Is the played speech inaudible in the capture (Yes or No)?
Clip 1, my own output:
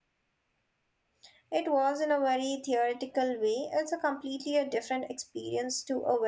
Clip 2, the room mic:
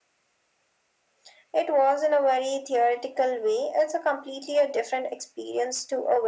No